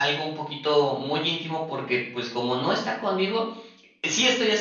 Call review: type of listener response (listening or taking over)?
listening